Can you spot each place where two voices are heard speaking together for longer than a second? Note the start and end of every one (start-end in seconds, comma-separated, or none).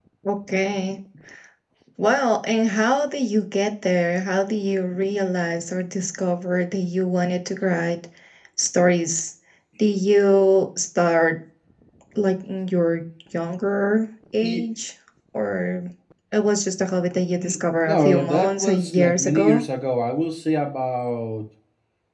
17.8-19.6